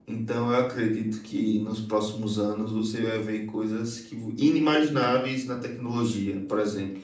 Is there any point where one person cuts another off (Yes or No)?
No